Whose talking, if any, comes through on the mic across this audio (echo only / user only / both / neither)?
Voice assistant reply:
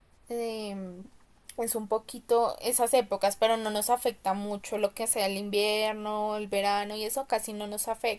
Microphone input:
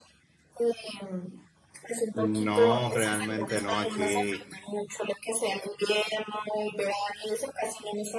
both